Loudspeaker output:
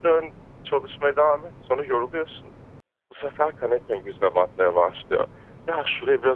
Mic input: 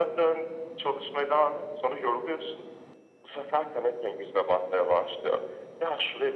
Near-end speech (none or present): none